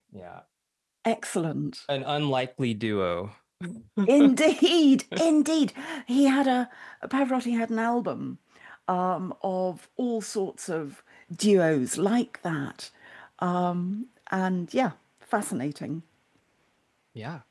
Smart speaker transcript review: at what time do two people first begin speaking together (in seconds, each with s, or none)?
none